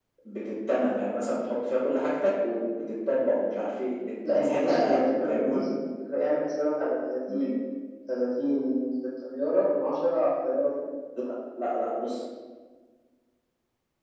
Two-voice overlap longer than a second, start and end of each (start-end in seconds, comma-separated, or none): 4.3-5.7